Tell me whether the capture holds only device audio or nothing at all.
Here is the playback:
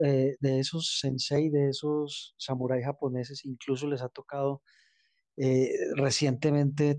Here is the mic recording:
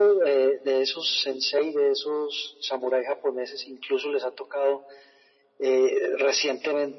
Yes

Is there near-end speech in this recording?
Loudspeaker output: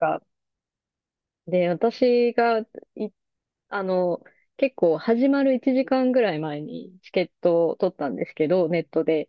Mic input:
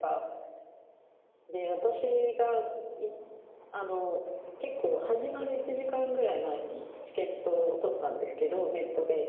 No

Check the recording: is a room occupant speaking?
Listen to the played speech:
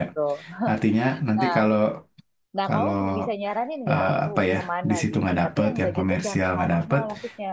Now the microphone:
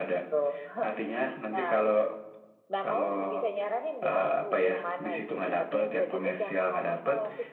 No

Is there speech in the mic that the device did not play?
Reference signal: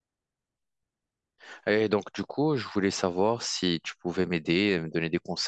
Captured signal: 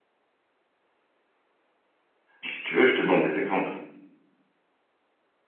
Yes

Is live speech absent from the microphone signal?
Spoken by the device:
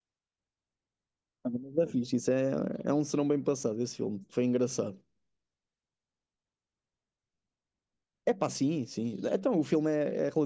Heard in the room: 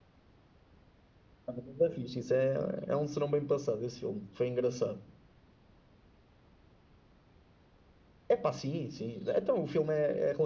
Yes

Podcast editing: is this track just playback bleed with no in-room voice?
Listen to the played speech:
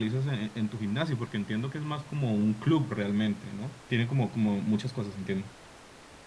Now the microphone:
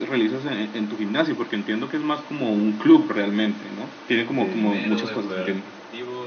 No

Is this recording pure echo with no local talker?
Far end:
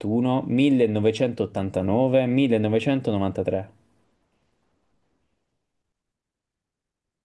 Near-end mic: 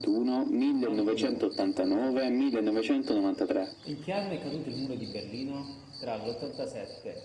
No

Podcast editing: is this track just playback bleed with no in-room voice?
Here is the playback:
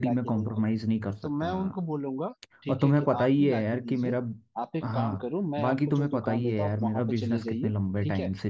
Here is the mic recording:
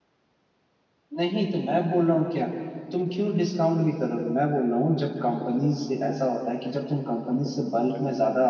No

